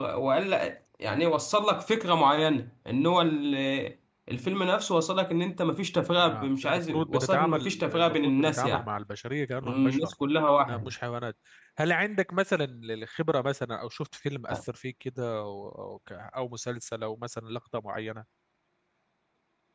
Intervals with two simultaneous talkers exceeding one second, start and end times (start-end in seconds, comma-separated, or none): 6.3-8.9